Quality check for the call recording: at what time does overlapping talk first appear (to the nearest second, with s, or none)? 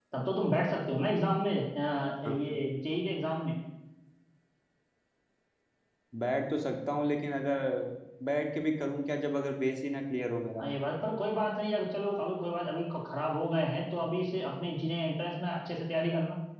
none